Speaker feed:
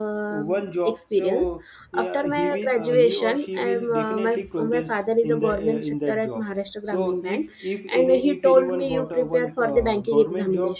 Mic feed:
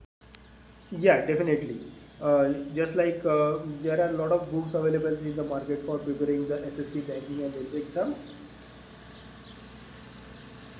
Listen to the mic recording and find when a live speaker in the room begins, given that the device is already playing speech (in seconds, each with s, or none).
0.9 s